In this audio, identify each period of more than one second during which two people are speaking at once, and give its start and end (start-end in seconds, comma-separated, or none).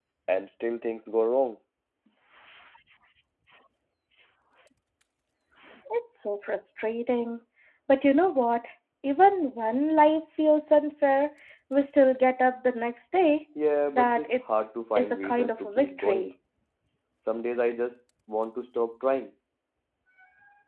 14.0-16.3